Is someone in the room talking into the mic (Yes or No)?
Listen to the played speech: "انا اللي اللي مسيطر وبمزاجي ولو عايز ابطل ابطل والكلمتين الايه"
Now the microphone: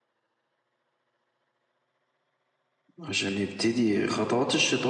Yes